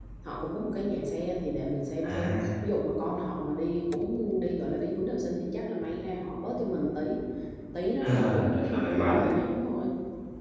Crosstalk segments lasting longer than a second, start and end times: 8.0-9.3

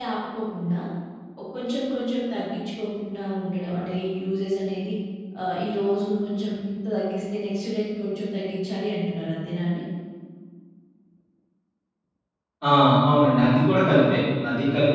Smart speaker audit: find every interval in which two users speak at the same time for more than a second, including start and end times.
none

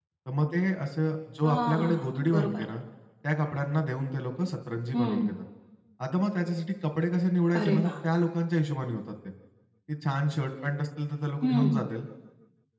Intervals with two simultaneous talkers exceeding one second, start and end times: 1.4-2.6

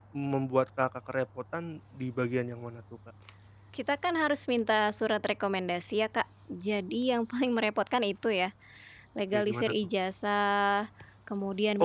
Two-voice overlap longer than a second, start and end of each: none

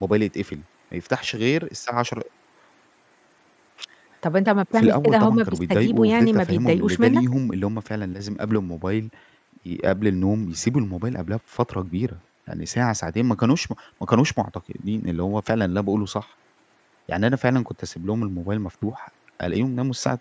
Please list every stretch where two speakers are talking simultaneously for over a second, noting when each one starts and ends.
4.7-7.2

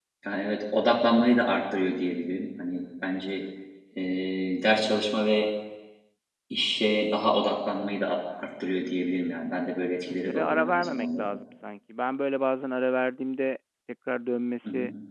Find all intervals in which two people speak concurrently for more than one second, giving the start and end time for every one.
9.8-11.3

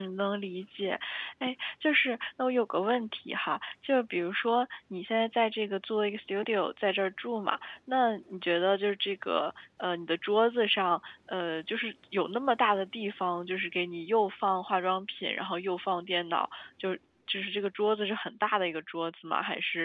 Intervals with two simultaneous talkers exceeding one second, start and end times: none

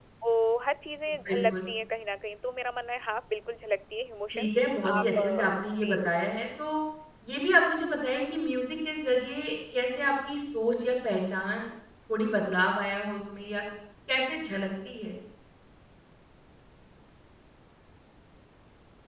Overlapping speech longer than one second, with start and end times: 4.3-6.0

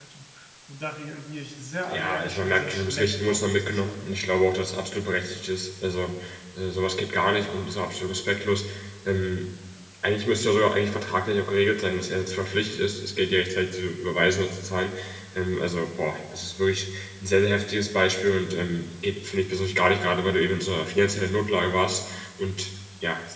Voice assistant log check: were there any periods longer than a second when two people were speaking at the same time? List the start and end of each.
1.9-4.1

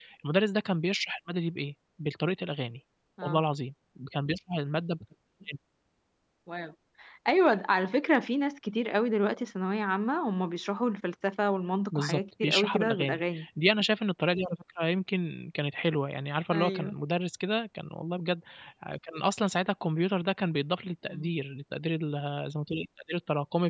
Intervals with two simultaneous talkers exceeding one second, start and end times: 11.9-13.4

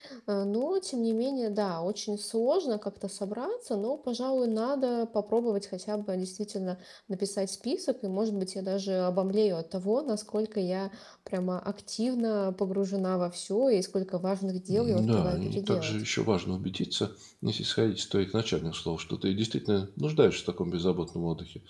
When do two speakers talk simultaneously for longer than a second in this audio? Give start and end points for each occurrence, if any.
14.7-16.0

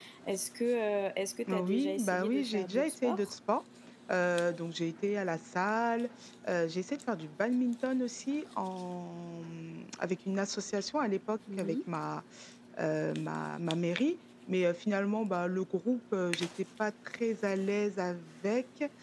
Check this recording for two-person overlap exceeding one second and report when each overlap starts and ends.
1.5-3.3

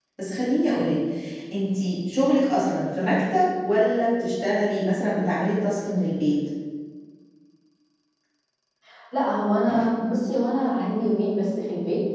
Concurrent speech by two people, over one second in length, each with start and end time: none

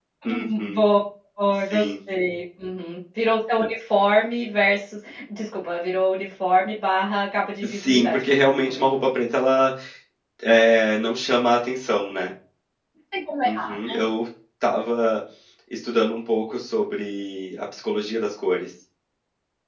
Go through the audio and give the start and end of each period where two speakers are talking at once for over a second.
7.6-9.1

